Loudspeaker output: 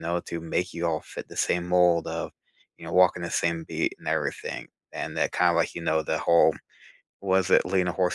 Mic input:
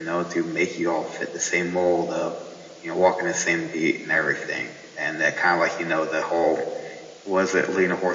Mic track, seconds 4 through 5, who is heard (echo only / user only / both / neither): echo only